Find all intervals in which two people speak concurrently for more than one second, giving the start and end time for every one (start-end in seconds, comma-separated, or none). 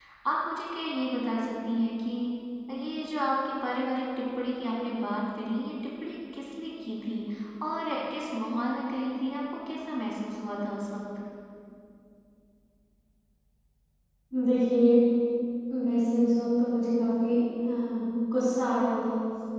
none